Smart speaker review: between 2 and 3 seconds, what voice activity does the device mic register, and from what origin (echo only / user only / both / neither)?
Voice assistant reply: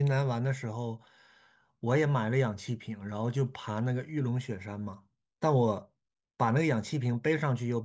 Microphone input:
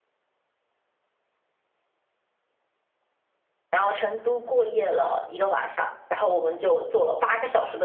neither